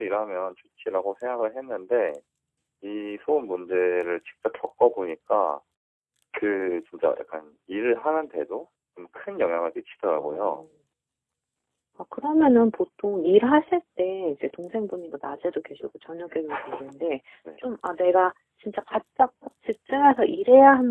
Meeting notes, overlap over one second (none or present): none